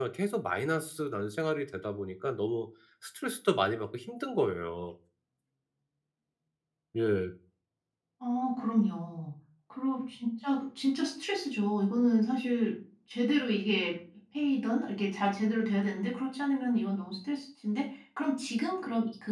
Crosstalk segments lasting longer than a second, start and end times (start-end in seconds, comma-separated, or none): none